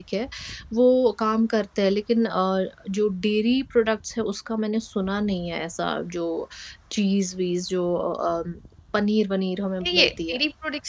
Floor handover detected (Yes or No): Yes